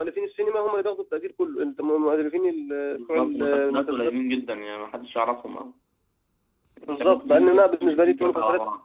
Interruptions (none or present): present